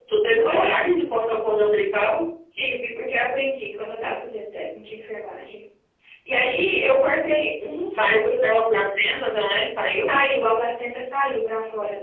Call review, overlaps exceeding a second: none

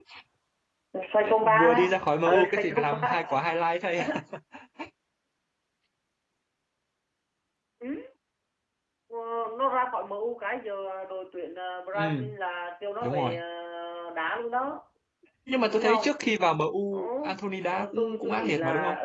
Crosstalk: present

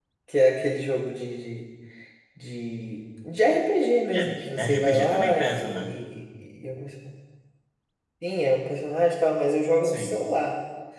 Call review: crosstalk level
present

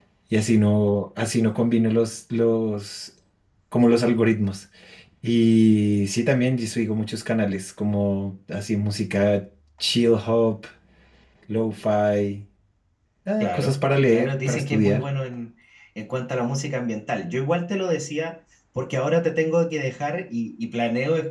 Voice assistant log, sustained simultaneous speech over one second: present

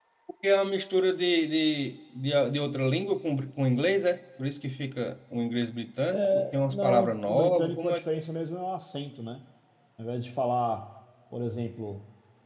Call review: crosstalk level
present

